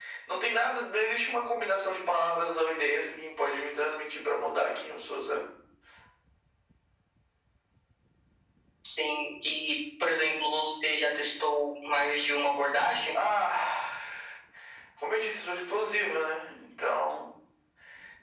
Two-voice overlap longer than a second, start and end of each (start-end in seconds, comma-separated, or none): none